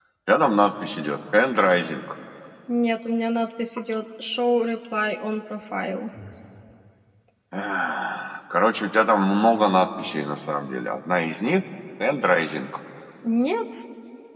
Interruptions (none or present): none